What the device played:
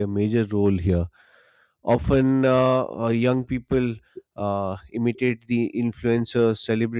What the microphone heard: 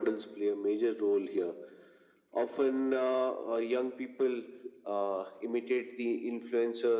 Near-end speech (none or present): none